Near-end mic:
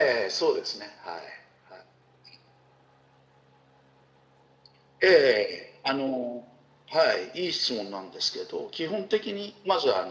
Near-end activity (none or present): none